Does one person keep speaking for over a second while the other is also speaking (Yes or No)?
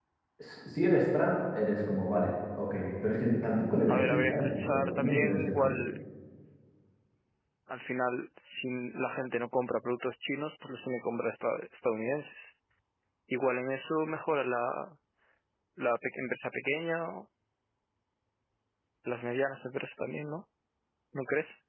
Yes